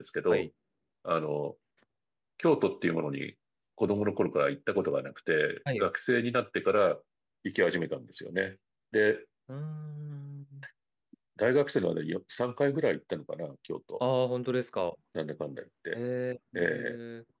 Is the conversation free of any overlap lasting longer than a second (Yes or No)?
Yes